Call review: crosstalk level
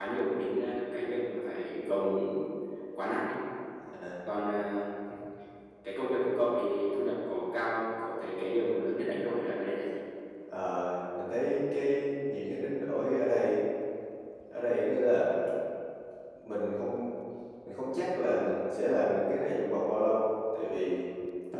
none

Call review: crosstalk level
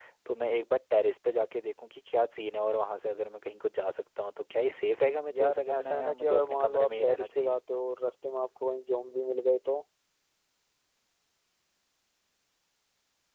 present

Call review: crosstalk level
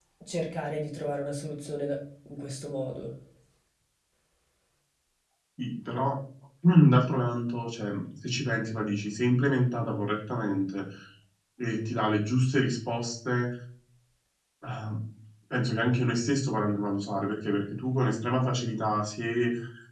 none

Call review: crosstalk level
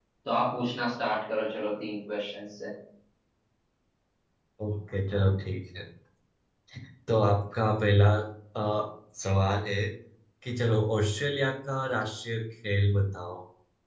none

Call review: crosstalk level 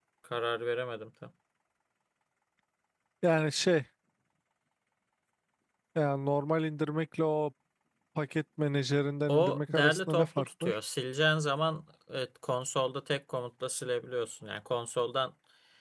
present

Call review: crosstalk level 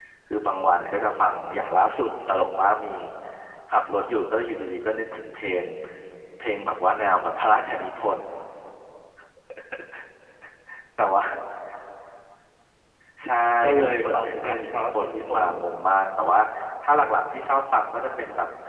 present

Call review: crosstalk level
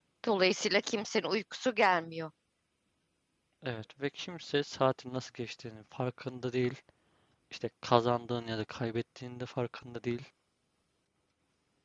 none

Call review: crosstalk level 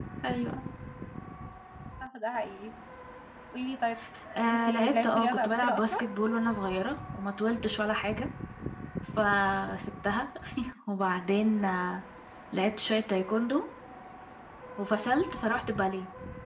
present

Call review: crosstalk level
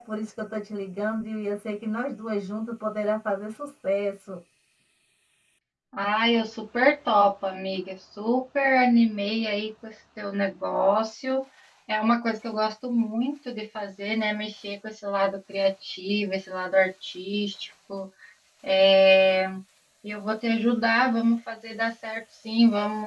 none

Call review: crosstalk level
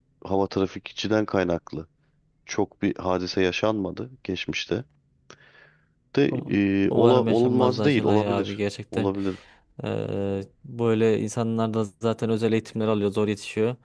present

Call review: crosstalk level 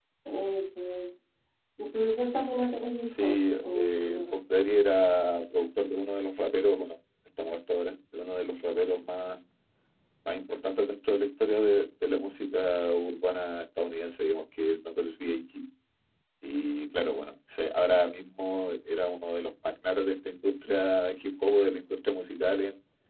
present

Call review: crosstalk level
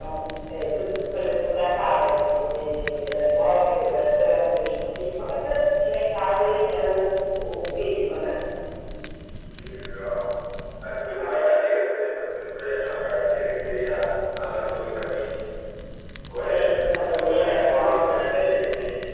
present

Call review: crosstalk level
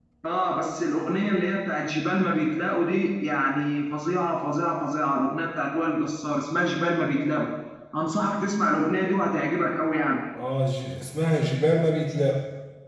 none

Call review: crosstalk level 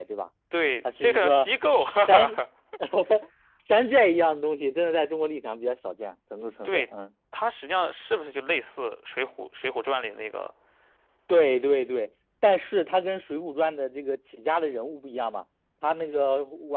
present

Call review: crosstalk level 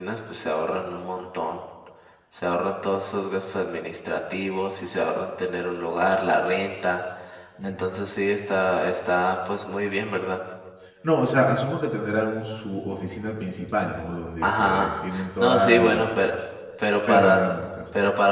present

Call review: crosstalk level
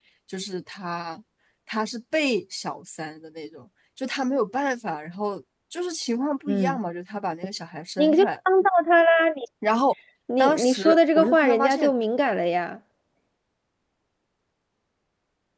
present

